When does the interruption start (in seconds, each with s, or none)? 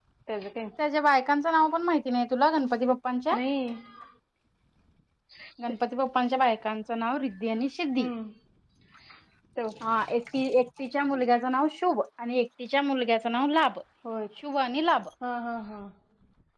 none